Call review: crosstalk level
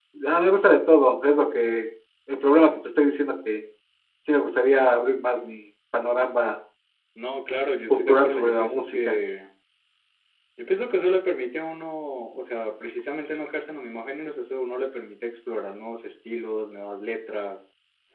present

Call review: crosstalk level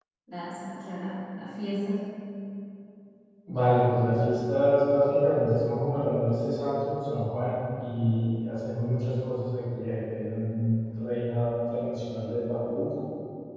none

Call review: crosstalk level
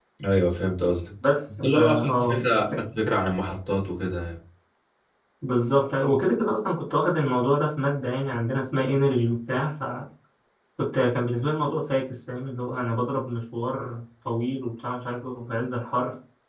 present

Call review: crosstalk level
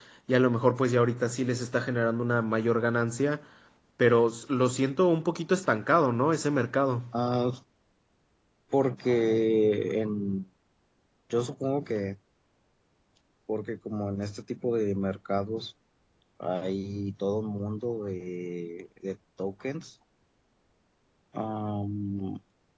none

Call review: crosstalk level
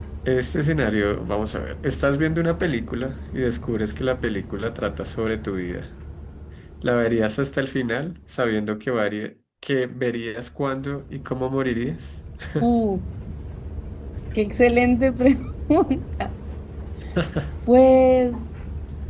none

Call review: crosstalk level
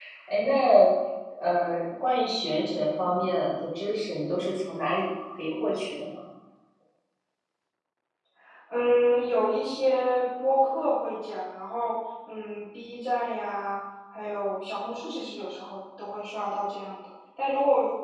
none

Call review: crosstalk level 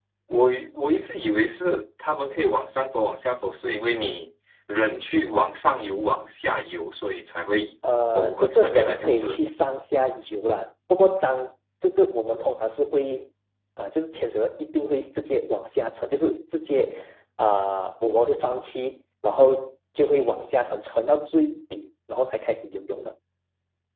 present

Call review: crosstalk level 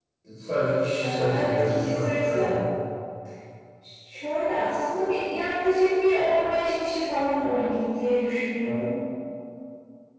present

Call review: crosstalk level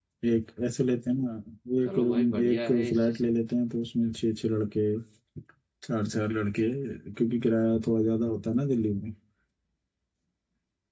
present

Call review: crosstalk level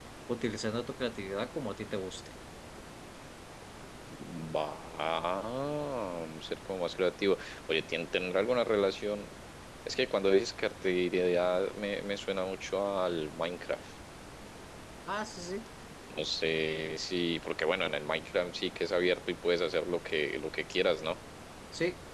none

